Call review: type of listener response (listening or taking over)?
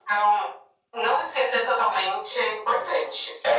taking over